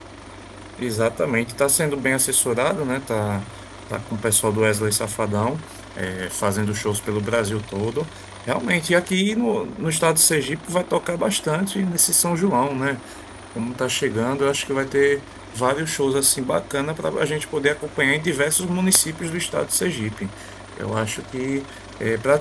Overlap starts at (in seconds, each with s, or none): none